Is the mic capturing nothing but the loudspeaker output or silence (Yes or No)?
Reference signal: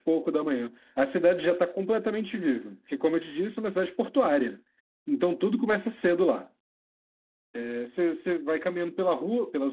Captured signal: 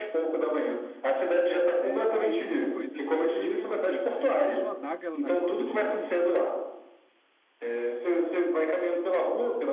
No